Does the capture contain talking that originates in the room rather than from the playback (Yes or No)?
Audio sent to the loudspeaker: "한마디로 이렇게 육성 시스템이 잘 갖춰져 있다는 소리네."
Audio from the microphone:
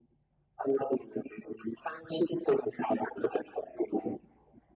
No